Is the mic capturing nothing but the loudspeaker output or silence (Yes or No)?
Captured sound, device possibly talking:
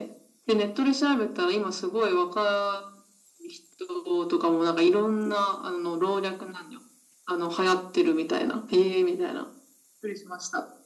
Yes